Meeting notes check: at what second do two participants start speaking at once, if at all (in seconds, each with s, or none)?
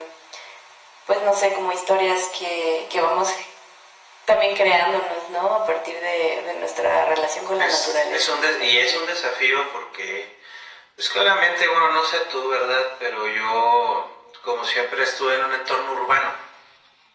7.6 s